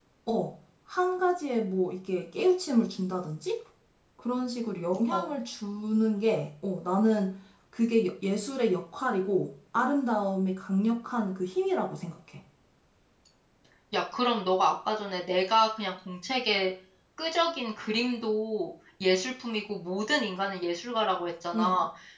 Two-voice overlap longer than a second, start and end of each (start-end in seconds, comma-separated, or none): none